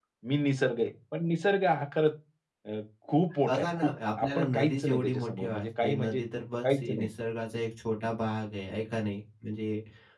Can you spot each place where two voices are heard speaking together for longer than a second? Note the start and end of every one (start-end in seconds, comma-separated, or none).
3.5-6.2